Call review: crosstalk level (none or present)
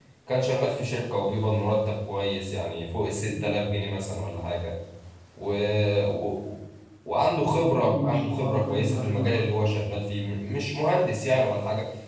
present